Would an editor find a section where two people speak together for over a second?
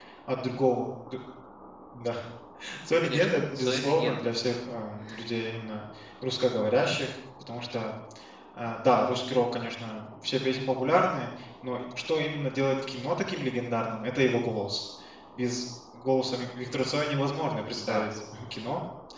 Yes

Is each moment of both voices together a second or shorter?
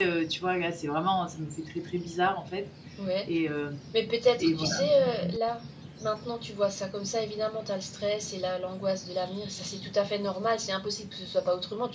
Yes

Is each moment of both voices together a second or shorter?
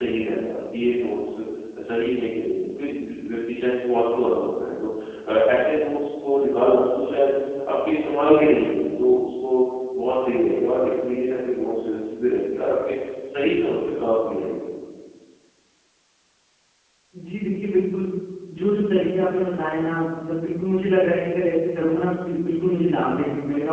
Yes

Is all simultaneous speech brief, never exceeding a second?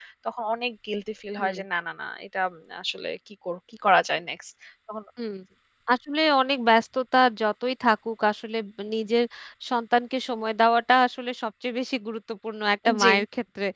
Yes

